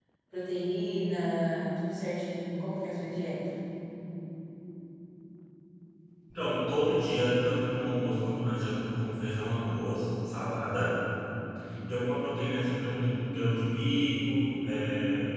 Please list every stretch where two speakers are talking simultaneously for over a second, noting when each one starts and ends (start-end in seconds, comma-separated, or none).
none